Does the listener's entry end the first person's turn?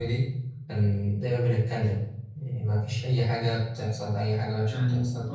Yes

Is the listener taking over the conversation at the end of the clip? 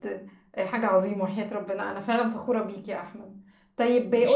No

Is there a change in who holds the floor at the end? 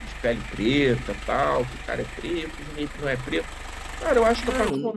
No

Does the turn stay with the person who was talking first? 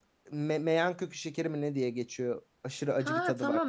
No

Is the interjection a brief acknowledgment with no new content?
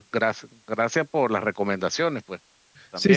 No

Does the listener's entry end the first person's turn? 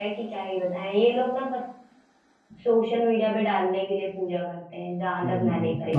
Yes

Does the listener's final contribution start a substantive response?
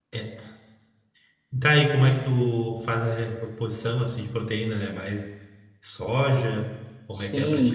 Yes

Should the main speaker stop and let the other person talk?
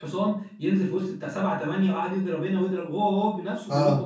Yes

